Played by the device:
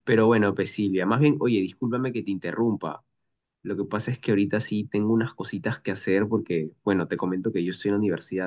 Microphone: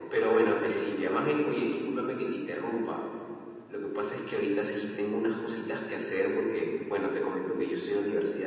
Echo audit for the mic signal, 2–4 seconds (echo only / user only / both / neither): echo only